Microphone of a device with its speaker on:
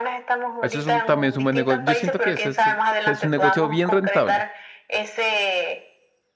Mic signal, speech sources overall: both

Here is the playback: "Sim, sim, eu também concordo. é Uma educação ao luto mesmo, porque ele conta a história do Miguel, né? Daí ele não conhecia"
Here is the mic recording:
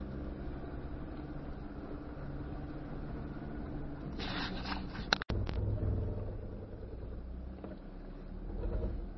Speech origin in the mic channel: neither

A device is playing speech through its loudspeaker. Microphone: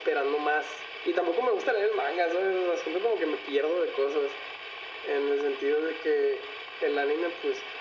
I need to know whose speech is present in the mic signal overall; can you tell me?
echo only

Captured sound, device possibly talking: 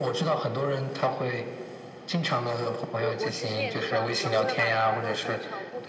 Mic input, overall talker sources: both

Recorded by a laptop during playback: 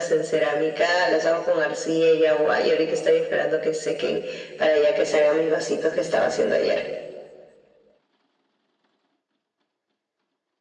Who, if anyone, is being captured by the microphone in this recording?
echo only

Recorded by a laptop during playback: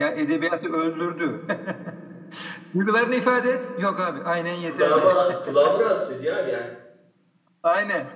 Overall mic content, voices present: both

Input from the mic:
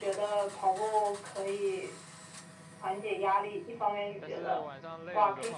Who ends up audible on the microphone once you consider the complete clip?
both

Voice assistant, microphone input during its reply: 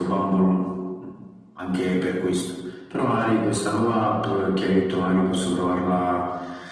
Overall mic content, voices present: echo only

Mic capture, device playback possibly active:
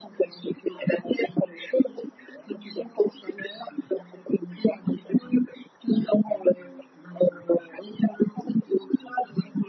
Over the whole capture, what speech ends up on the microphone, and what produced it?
echo only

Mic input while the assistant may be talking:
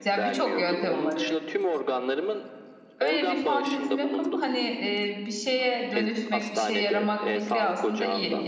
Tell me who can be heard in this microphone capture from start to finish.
both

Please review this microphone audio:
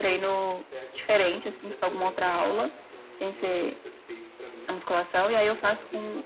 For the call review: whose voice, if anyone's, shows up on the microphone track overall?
both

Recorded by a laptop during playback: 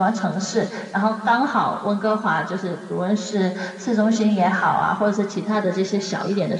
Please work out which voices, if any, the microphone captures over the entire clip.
echo only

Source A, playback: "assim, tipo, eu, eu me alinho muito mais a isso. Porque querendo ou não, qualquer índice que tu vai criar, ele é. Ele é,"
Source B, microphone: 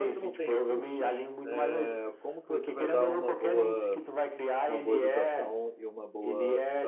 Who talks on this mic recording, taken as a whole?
both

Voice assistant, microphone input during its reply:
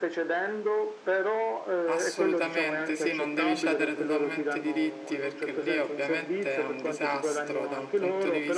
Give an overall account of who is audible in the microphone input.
both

